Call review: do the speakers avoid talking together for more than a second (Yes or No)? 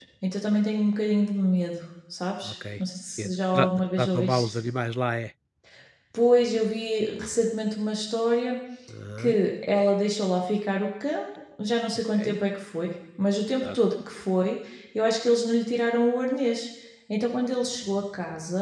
No